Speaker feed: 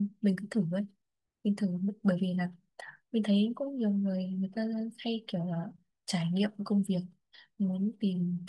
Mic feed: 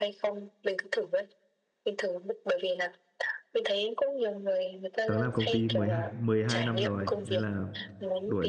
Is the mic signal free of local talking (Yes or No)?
No